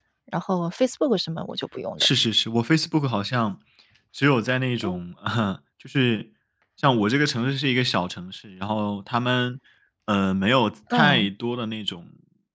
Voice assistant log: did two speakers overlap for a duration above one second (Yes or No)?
No